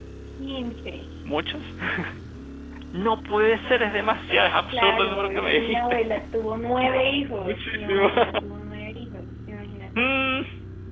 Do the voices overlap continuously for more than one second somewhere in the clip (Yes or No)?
Yes